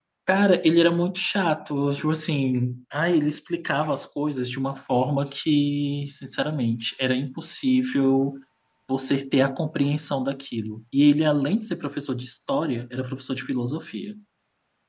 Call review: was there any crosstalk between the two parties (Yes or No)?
No